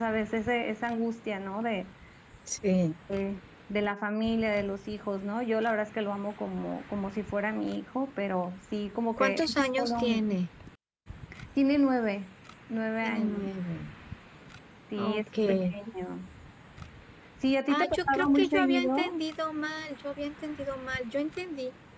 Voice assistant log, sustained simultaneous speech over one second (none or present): present